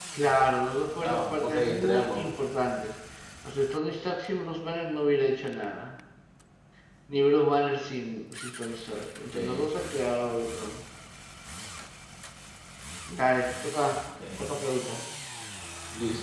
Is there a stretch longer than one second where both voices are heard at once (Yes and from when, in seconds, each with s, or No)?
Yes, from 1.0 s